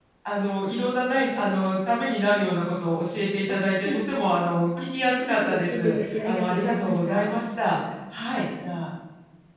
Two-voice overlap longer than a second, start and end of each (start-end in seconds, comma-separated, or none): 4.8-7.4